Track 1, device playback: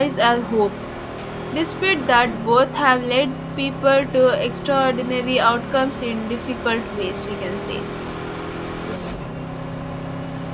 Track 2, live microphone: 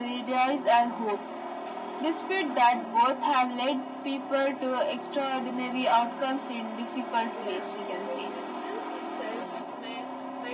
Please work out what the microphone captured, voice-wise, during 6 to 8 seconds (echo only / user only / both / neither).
both